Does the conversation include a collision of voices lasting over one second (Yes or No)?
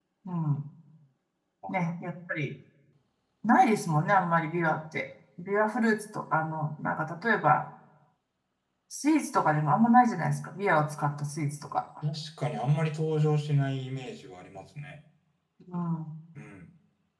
No